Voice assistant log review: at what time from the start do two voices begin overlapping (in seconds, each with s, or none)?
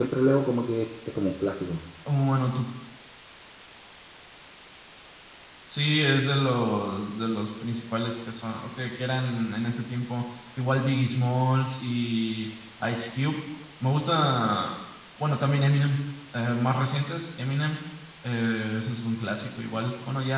none